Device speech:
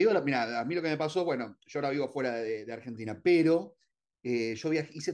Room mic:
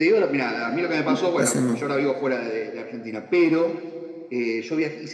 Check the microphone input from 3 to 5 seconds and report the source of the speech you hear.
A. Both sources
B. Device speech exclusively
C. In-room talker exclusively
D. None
B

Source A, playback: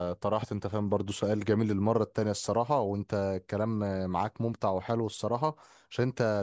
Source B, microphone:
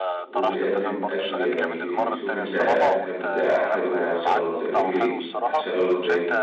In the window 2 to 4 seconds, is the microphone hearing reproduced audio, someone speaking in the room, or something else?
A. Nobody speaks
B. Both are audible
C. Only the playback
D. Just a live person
B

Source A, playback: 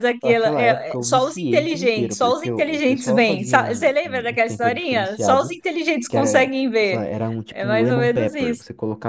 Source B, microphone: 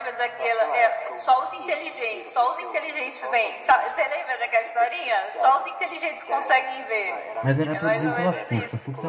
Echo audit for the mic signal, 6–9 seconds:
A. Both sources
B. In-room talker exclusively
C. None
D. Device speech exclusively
A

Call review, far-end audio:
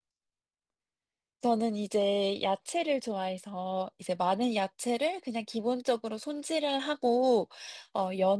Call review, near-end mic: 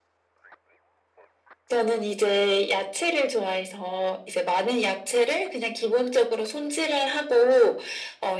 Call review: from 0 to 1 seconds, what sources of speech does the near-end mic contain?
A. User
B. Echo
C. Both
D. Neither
D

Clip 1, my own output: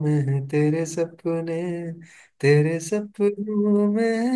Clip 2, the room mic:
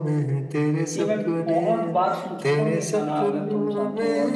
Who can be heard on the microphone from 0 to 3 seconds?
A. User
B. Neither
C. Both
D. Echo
C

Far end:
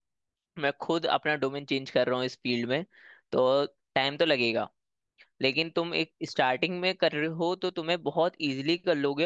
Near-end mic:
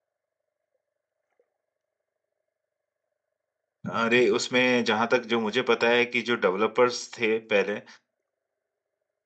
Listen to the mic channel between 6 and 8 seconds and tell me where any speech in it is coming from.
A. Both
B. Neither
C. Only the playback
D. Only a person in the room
D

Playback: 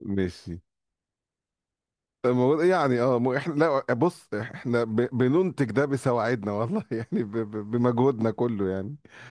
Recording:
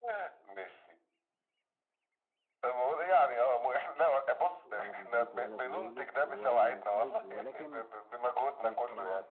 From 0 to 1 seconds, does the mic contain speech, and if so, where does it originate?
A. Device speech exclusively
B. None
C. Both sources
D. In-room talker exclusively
A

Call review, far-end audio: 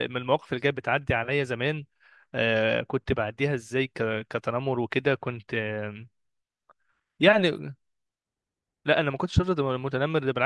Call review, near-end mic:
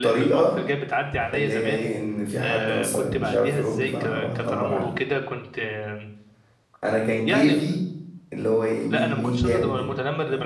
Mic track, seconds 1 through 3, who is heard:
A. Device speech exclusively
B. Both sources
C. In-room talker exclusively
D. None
B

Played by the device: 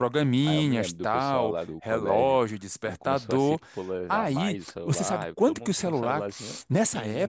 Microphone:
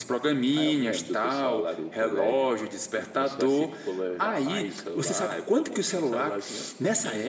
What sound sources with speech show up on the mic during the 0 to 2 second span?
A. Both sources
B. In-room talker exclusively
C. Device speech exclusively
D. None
C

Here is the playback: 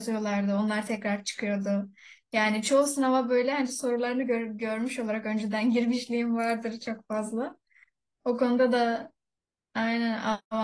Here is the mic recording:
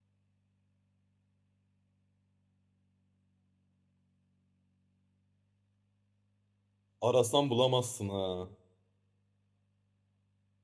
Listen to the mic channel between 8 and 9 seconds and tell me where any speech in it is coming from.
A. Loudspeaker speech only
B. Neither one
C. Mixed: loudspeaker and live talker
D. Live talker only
D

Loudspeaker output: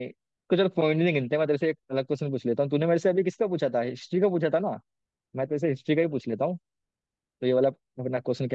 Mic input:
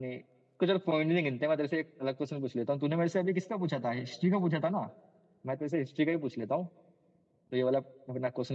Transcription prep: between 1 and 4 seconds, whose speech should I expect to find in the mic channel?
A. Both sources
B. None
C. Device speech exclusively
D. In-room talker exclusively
C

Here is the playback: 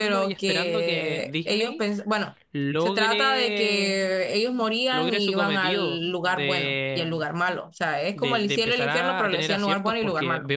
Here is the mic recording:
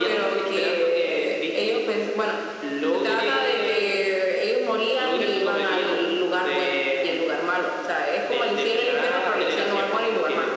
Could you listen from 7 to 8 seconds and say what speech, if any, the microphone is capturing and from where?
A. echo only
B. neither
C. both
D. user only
A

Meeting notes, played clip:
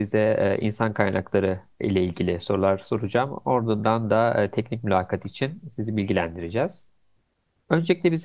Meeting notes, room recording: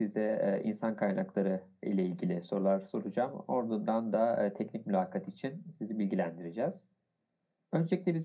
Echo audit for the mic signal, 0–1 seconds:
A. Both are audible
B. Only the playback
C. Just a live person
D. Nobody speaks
B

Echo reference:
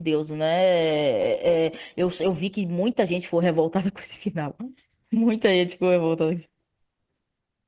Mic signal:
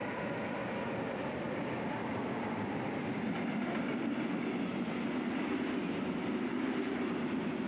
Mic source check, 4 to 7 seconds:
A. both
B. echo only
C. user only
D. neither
D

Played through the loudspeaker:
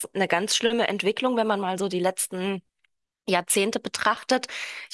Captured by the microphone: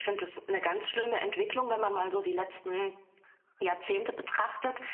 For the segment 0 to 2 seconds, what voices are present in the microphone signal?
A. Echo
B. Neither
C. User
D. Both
A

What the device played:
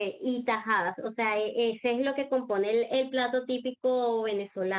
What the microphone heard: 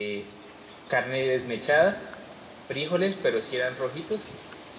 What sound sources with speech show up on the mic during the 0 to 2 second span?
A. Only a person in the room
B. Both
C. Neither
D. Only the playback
A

